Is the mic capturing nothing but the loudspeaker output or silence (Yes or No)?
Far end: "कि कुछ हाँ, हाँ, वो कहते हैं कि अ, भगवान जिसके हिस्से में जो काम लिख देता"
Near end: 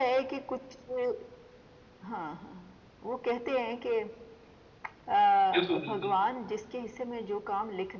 No